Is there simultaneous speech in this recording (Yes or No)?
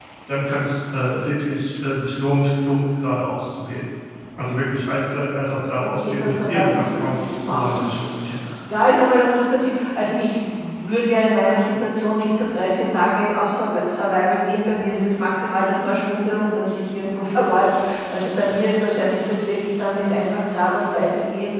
Yes